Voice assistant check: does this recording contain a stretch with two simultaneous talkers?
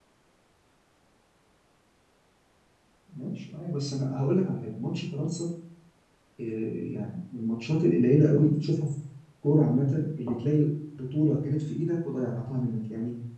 No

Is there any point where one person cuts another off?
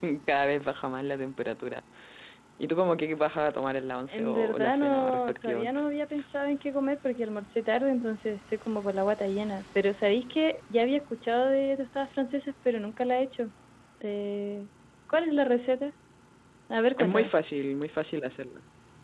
Yes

